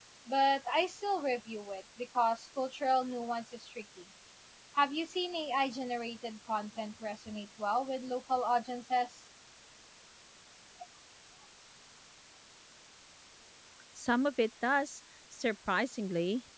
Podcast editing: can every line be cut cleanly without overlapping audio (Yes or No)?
Yes